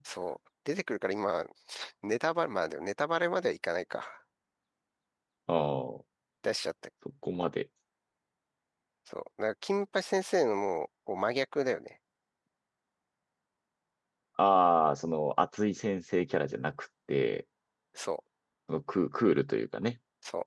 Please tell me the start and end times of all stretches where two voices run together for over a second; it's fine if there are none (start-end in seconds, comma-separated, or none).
none